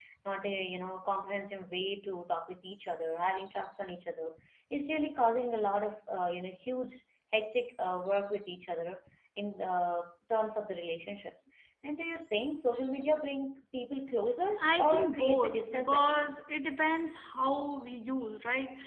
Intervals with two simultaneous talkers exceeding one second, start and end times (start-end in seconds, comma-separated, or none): 14.6-16.4